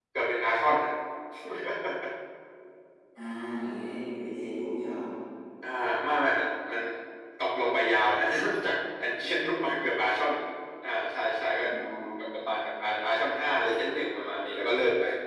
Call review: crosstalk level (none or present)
none